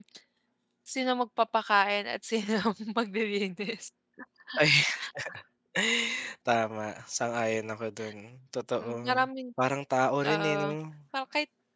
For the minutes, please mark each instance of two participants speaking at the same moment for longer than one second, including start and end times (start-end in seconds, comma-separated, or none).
none